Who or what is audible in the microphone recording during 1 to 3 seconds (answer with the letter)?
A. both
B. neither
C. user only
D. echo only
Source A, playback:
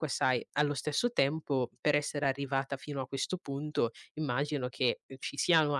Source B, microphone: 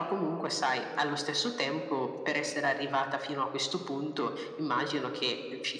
D